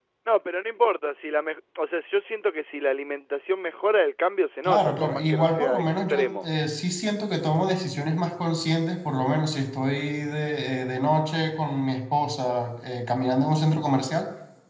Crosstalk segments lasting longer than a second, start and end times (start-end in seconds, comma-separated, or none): 4.6-6.5